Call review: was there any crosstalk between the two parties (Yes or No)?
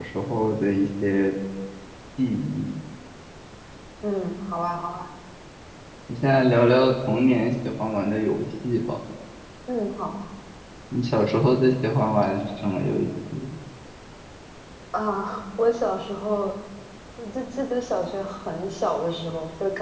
No